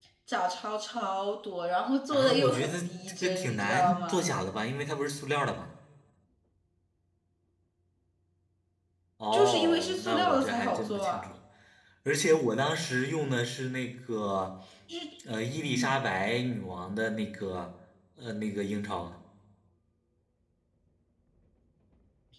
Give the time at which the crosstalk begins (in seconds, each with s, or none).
2.1 s